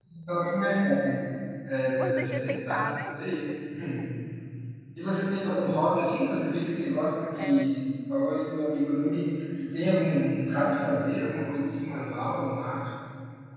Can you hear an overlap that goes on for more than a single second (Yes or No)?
Yes